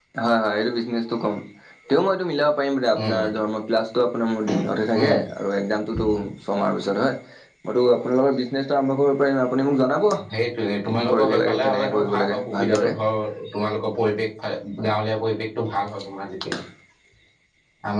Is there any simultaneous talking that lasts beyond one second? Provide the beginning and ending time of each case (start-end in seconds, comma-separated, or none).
10.8-12.9